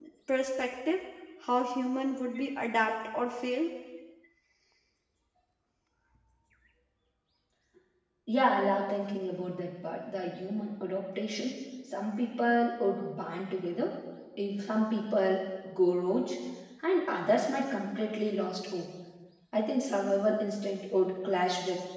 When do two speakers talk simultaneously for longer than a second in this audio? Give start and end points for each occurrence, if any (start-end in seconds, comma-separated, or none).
none